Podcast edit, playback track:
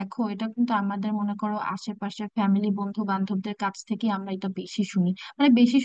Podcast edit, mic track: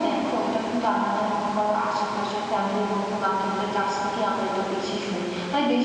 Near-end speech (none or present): none